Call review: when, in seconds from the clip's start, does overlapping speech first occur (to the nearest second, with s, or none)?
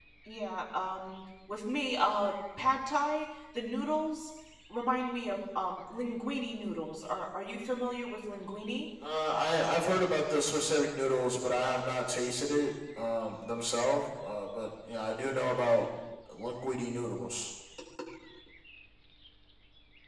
none